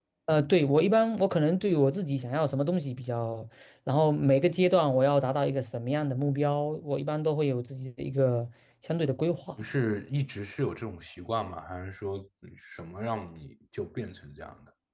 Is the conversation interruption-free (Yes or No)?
Yes